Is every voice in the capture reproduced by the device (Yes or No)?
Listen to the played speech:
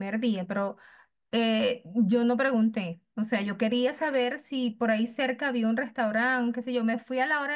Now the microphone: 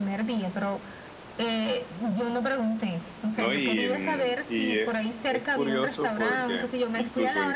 No